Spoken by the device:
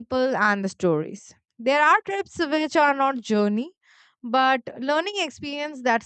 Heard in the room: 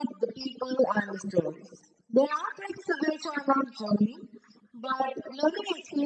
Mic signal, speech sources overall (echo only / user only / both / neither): echo only